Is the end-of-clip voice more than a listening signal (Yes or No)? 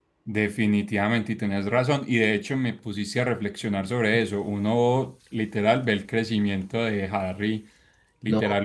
No